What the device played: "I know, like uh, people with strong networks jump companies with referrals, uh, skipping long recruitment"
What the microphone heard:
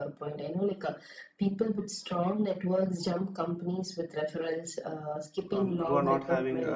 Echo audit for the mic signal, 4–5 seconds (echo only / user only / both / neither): echo only